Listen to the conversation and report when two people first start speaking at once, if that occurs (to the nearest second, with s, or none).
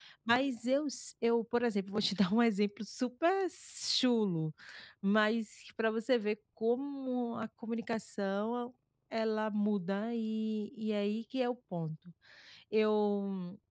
none